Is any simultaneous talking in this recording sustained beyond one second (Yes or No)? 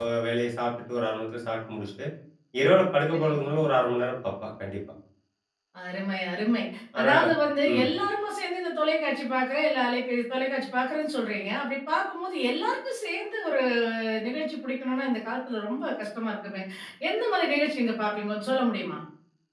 No